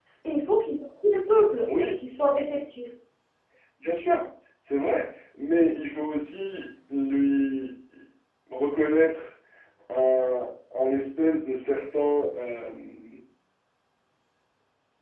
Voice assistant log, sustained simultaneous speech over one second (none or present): none